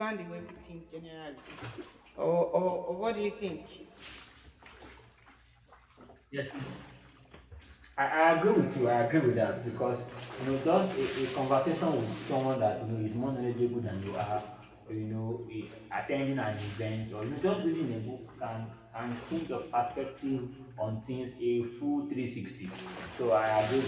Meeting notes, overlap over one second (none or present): none